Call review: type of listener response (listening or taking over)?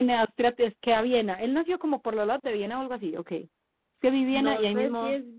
taking over